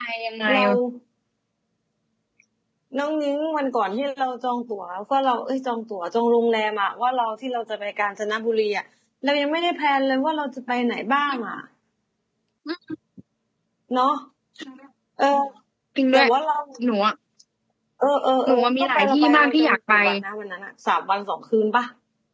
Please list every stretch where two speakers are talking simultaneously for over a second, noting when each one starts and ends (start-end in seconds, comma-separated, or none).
18.5-19.9